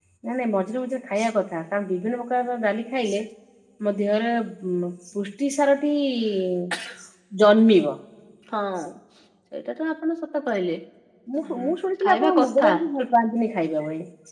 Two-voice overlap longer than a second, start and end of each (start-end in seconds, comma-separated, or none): 11.5-12.7